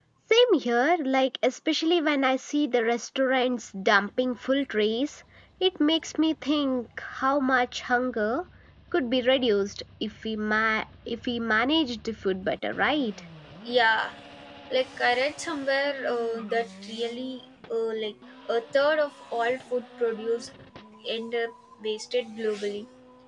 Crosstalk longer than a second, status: none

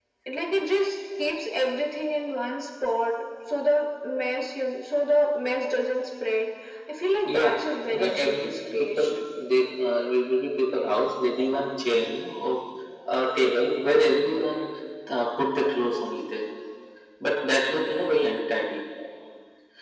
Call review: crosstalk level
present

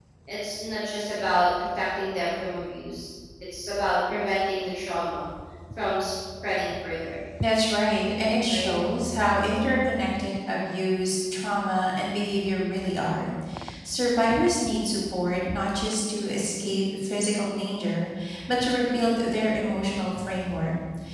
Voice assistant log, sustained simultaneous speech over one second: none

